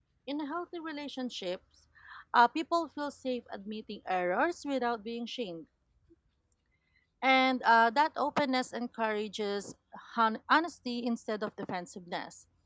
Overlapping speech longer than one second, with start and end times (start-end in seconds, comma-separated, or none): none